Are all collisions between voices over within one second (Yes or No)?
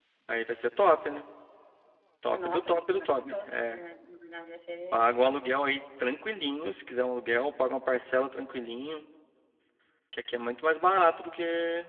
No